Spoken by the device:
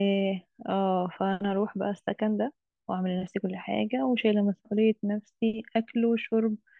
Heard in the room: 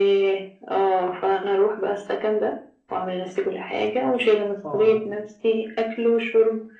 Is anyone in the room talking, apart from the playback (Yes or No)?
Yes